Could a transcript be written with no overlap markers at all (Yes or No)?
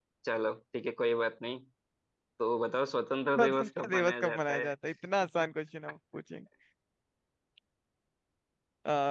No